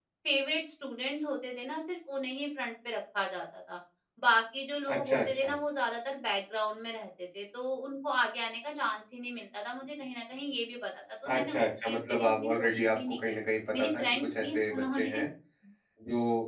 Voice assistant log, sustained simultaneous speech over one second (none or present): present